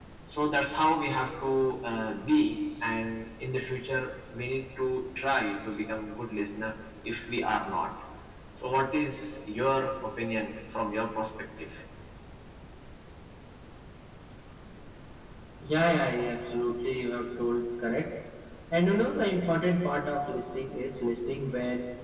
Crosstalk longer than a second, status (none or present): none